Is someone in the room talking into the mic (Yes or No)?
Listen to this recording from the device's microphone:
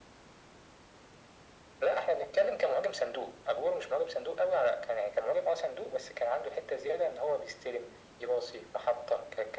No